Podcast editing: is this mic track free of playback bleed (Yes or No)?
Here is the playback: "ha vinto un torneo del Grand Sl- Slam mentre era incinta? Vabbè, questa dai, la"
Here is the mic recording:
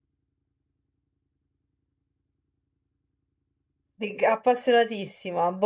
Yes